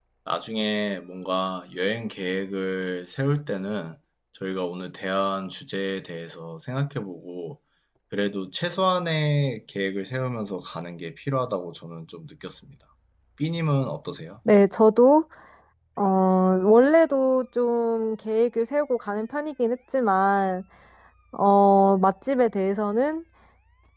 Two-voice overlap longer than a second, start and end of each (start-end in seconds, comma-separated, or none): none